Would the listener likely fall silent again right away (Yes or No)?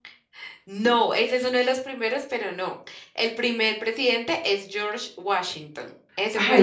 No